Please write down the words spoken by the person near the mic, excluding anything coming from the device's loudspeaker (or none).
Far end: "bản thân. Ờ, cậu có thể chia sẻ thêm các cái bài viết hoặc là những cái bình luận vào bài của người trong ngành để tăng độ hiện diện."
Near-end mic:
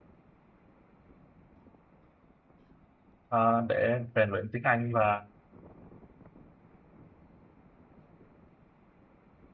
à, để rèn luyện tiếng Anh và